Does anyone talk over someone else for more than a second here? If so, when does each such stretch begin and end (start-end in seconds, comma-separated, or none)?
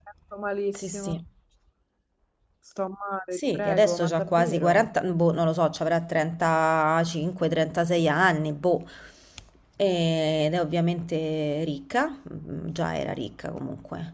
3.3-4.9